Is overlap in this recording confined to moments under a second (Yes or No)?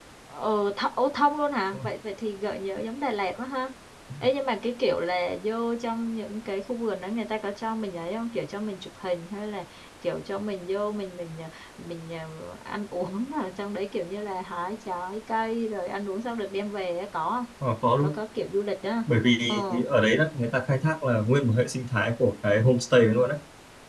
Yes